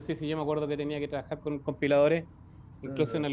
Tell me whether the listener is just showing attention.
Yes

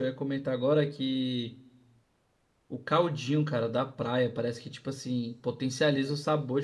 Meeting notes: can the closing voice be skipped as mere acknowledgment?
Yes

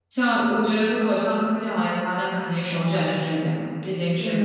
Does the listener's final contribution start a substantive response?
Yes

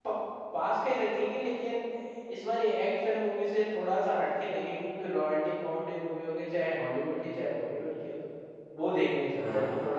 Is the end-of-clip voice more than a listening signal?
Yes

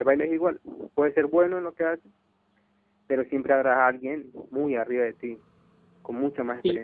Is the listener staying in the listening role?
No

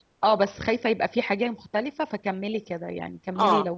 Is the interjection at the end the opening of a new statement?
Yes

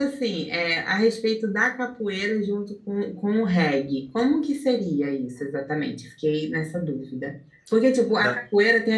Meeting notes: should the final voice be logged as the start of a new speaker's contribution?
No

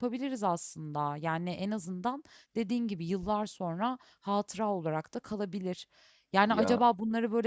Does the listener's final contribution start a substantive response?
No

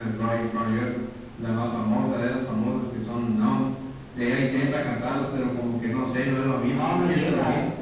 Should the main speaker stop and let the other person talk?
Yes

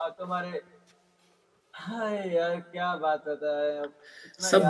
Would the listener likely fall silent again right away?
No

